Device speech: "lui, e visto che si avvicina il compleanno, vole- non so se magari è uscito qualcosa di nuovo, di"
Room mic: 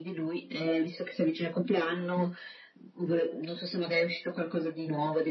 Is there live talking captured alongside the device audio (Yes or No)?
No